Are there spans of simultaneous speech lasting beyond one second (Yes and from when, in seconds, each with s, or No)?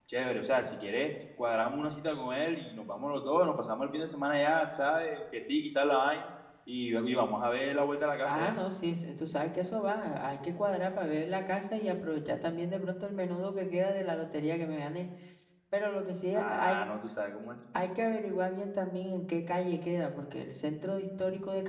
No